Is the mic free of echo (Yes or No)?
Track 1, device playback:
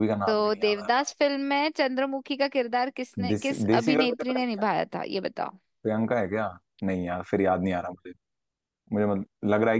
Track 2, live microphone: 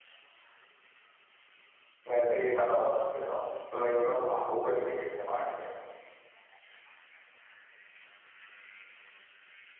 Yes